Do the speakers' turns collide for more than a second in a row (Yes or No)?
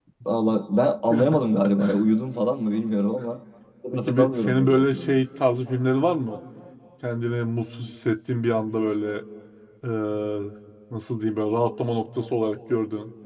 Yes